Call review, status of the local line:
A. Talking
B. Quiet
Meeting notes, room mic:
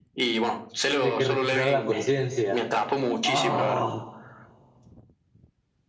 A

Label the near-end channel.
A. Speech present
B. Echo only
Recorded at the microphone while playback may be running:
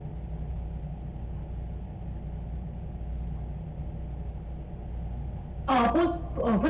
A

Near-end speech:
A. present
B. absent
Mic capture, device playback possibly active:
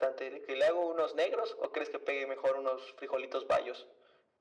B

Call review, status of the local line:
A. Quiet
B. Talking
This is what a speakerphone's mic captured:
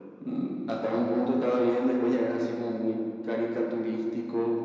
A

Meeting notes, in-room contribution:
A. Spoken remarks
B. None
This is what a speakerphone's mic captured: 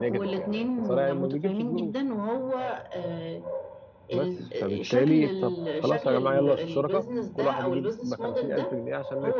A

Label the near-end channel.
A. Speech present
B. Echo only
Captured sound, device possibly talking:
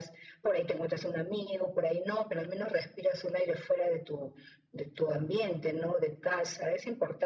B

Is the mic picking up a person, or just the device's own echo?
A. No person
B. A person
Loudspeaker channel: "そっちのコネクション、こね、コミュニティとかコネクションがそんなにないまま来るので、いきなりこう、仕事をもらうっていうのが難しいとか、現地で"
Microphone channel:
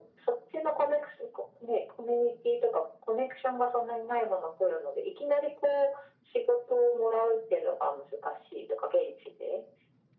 A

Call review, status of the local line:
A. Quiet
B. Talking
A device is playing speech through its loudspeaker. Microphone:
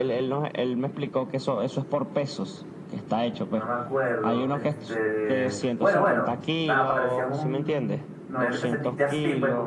B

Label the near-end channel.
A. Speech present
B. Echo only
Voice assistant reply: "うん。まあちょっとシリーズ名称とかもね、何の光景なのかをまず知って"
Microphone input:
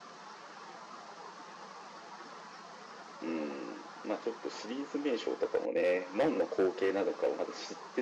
B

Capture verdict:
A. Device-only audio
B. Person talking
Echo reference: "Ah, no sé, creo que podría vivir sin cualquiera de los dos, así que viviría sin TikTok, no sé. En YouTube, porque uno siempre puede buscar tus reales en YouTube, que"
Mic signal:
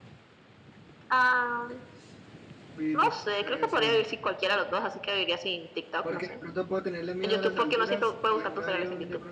B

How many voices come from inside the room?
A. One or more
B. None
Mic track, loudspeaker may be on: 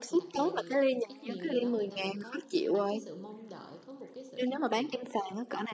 A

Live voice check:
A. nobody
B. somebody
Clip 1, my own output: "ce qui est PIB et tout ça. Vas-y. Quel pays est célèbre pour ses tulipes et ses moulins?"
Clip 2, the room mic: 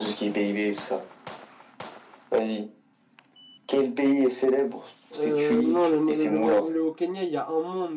B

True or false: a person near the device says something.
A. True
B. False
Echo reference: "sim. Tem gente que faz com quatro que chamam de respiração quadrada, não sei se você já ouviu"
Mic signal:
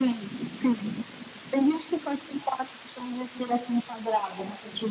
B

